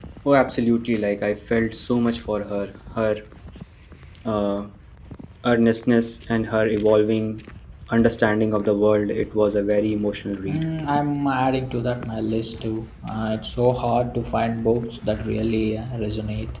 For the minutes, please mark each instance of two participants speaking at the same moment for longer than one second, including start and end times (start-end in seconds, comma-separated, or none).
none